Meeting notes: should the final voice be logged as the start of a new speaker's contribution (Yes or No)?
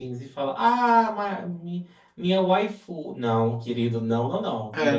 No